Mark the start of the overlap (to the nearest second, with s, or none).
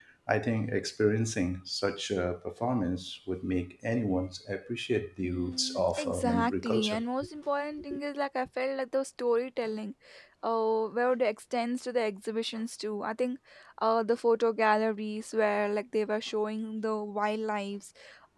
5 s